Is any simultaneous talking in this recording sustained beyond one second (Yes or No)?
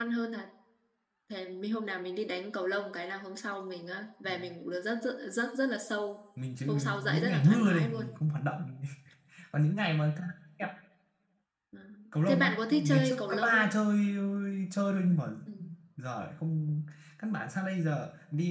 Yes